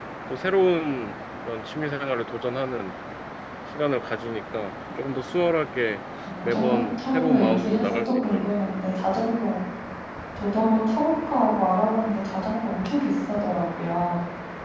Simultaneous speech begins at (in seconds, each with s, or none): 6.4 s